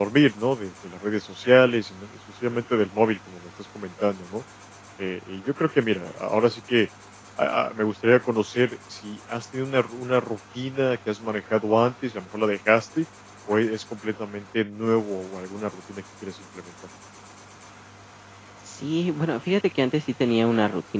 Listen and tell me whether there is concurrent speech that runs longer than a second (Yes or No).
No